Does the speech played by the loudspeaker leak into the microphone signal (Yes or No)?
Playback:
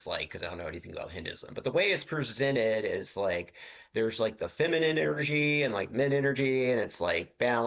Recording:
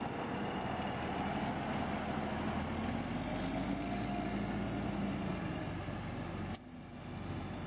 No